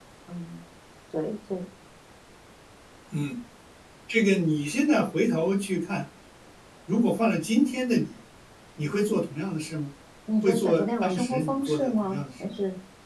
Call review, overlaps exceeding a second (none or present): present